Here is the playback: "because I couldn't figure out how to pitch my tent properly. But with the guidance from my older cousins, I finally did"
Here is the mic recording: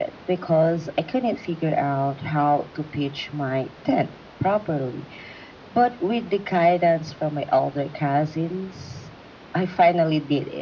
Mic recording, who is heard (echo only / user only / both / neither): echo only